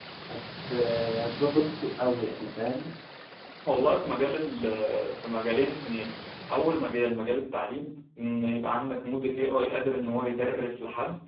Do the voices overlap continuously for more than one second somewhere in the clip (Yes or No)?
No